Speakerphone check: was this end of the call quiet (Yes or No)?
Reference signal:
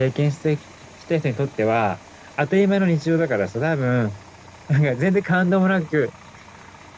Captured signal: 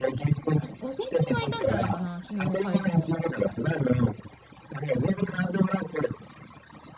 No